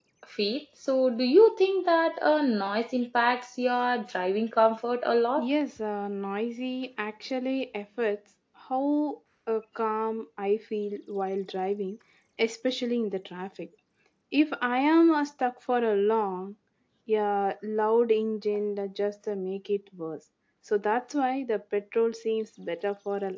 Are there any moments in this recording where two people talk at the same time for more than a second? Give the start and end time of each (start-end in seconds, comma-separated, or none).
none